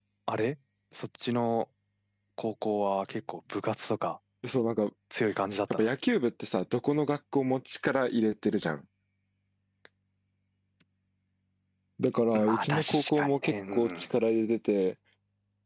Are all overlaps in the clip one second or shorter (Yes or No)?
No